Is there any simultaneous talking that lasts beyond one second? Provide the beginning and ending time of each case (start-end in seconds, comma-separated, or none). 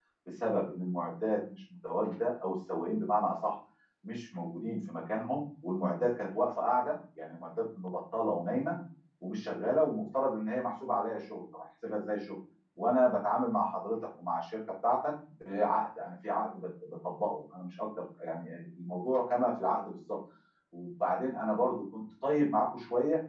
none